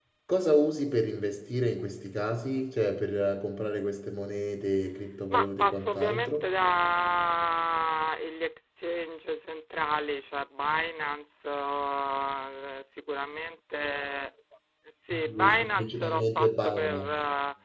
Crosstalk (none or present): present